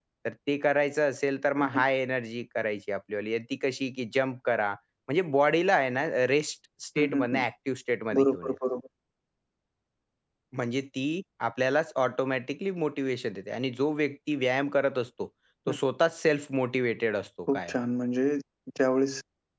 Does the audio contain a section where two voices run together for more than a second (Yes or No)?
No